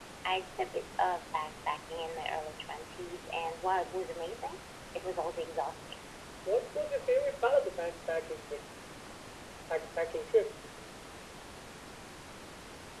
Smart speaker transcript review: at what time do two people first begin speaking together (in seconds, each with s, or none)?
none